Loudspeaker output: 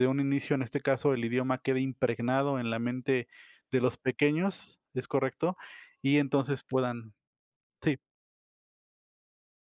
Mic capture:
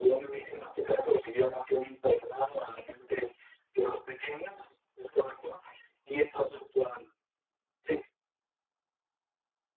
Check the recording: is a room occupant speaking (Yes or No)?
No